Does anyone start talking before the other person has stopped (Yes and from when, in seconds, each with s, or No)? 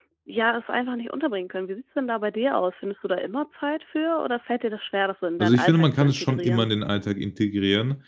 Yes, from 5.4 s